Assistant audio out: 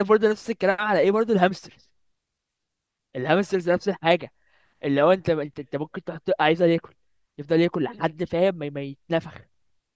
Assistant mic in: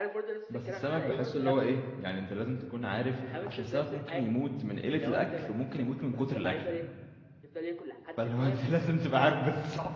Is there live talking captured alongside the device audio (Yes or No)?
Yes